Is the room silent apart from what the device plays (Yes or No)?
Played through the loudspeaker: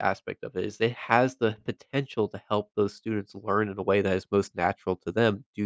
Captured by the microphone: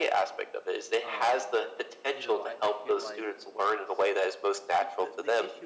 No